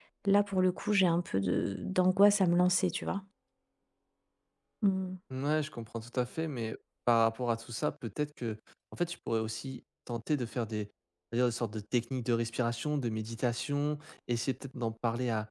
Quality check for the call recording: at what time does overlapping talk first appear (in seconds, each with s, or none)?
none